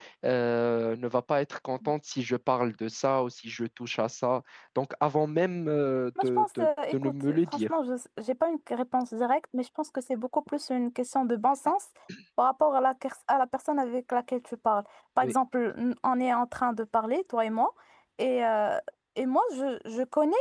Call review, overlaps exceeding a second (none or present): present